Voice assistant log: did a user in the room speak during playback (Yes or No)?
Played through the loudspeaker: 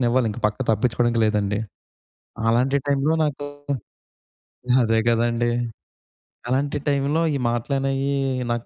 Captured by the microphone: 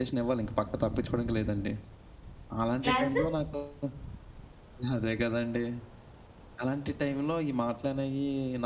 Yes